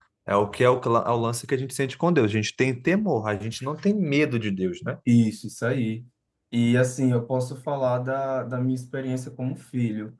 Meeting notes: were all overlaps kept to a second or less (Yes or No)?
Yes